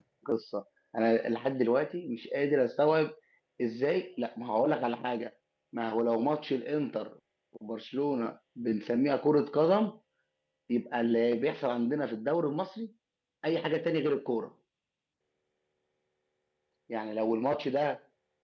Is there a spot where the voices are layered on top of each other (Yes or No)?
No